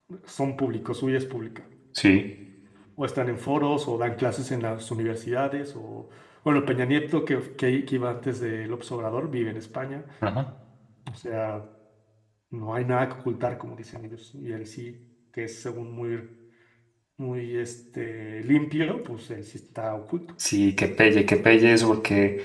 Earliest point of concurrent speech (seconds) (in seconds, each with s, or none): none